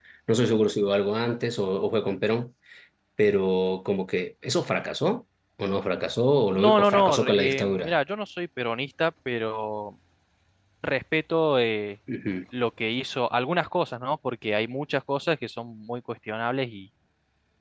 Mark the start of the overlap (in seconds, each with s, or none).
6.5 s